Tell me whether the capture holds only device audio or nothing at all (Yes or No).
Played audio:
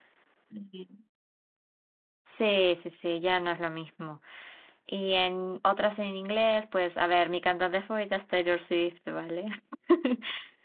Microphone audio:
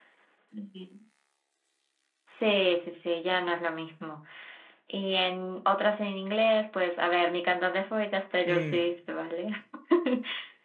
No